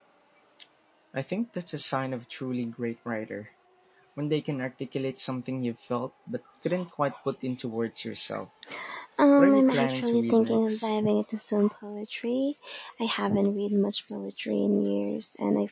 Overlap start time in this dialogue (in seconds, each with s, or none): 9.4 s